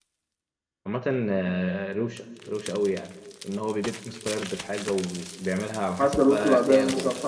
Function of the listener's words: taking over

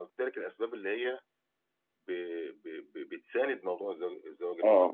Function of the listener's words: listening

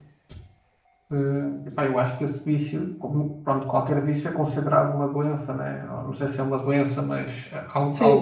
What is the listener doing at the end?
taking over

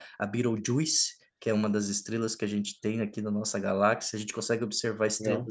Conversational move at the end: listening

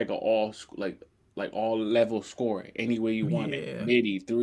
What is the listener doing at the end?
listening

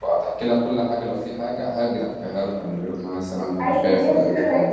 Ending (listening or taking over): taking over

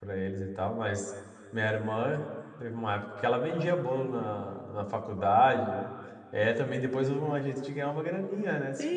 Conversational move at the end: taking over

